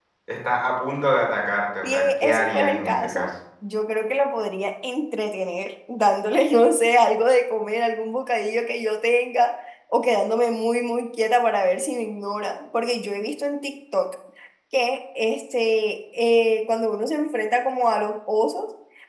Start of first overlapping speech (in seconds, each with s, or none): 1.8 s